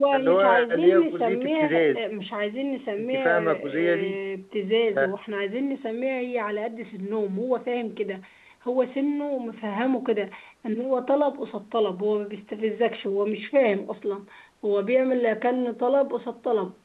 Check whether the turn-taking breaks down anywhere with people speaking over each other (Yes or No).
Yes